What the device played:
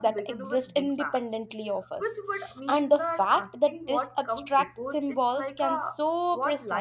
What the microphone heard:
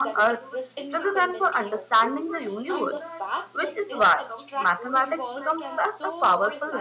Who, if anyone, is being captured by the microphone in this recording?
both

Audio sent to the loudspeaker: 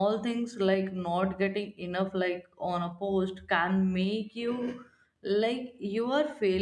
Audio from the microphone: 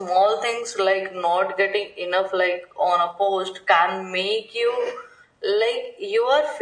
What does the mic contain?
echo only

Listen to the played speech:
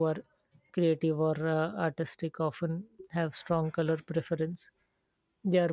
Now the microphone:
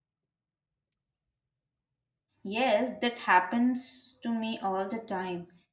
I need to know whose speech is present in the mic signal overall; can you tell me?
user only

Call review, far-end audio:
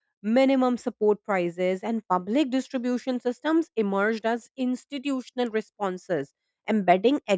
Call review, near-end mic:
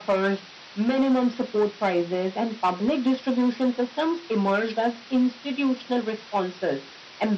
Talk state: echo only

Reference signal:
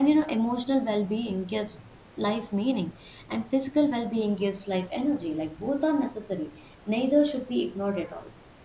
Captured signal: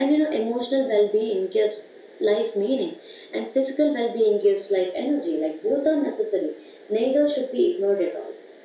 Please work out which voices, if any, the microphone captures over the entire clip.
echo only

